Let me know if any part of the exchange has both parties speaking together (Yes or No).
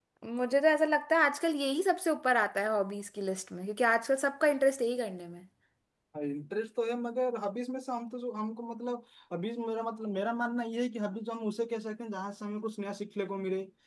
No